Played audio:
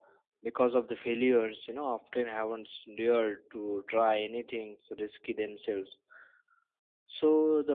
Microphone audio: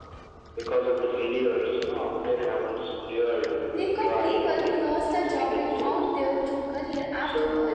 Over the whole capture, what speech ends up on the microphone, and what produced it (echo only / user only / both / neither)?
both